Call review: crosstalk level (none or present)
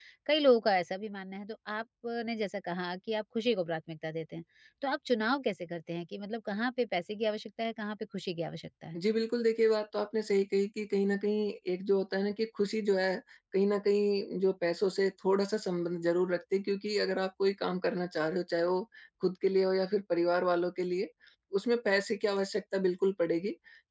none